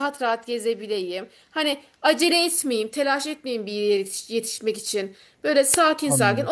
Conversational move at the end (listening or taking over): listening